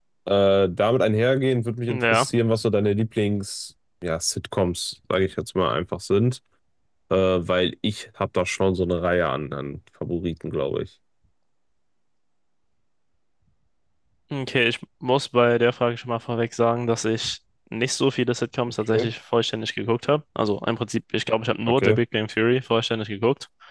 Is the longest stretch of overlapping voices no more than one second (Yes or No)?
Yes